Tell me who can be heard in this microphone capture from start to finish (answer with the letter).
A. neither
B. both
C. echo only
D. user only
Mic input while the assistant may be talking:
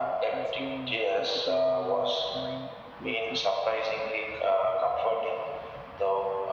B